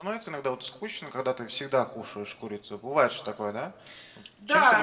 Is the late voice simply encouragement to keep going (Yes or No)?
No